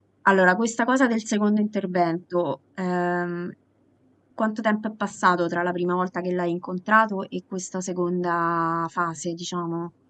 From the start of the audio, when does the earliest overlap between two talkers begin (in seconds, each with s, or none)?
none